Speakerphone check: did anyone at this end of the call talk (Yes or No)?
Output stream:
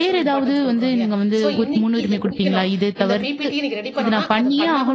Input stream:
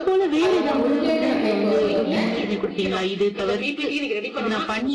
Yes